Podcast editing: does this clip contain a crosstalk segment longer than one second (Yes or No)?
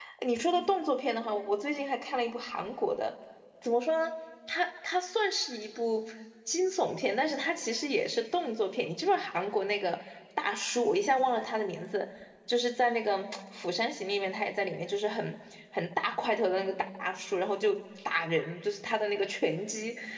No